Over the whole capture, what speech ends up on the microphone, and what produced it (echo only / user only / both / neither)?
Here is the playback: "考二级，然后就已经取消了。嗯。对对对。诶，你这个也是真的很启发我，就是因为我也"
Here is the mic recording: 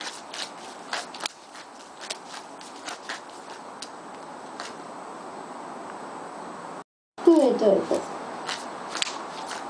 user only